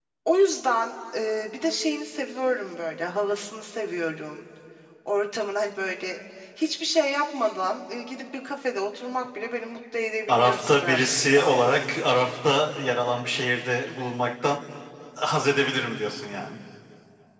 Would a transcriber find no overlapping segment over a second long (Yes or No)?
No